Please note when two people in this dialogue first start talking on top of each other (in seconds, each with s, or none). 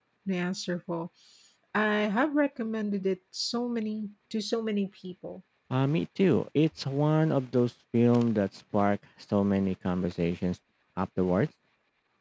none